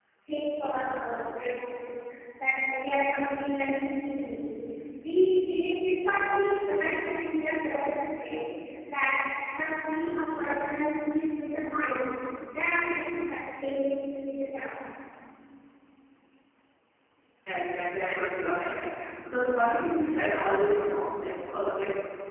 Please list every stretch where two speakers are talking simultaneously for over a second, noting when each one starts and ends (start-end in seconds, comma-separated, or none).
none